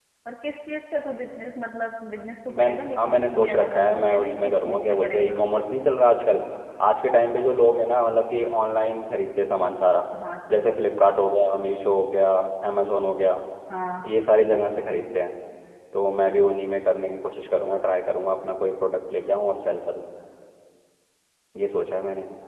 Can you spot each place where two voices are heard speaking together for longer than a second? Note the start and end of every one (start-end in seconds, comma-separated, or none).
2.6-5.4